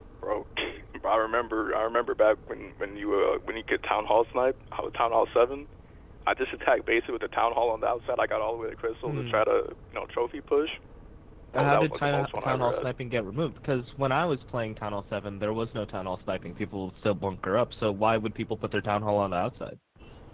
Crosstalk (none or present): present